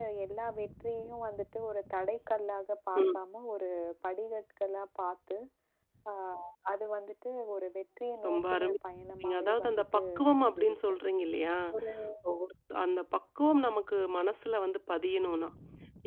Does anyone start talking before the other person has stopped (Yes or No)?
Yes